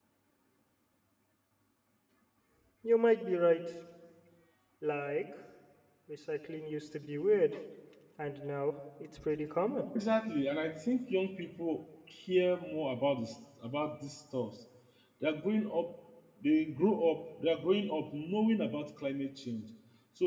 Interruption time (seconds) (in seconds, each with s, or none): none